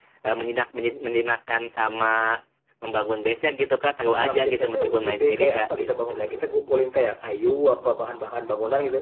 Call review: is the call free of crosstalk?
No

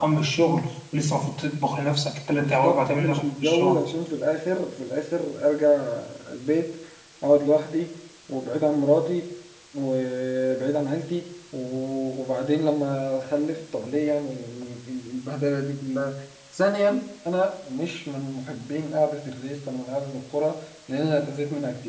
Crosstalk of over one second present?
Yes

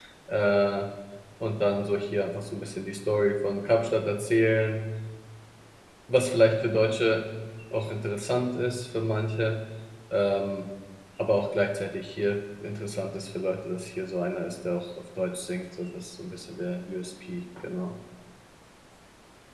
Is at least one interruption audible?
No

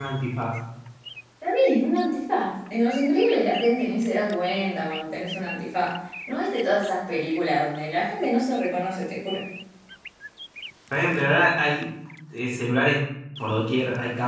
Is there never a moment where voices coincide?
Yes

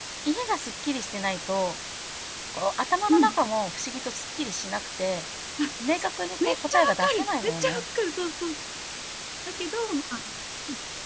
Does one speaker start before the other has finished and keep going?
Yes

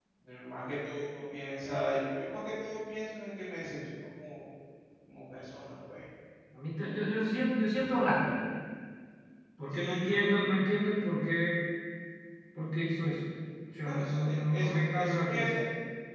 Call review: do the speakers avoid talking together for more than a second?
No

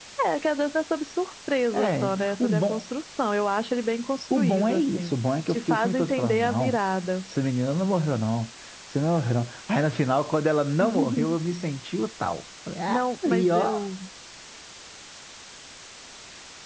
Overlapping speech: Yes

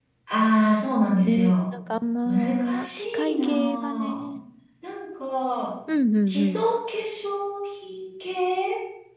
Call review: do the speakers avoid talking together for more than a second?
No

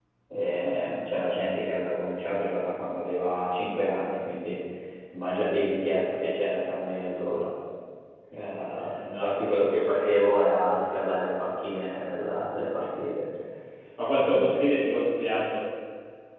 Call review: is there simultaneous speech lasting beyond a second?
No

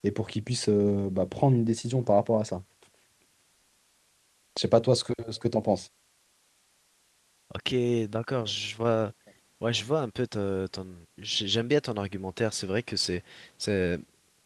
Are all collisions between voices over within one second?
Yes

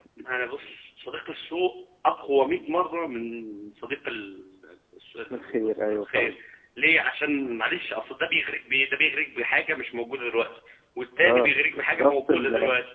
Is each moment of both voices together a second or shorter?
No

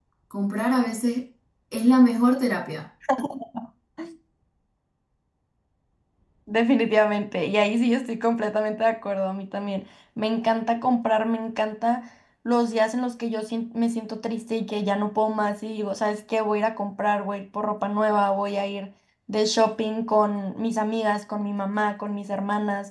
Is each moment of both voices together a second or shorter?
Yes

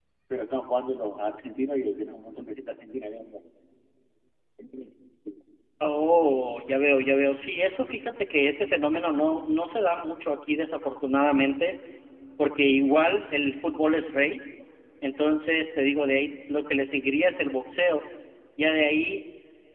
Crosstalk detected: No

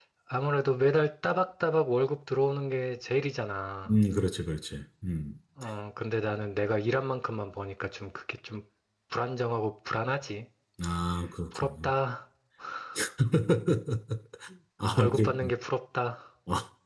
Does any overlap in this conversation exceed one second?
No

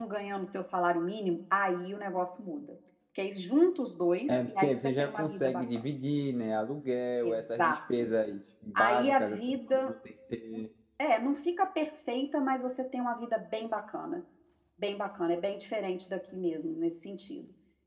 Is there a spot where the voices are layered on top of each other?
Yes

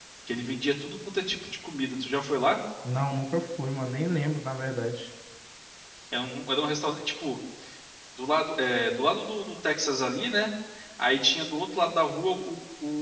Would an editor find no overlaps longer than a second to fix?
Yes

